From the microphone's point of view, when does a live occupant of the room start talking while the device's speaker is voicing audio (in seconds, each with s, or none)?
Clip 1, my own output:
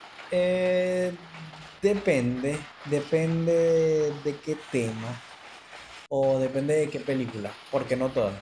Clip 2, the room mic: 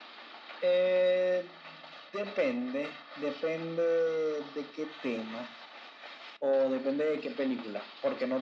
none